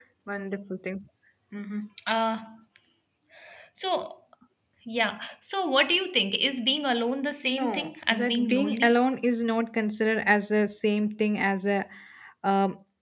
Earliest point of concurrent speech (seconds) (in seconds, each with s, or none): 7.4 s